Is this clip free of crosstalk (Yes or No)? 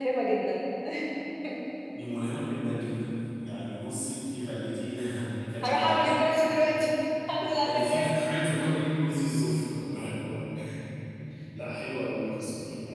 No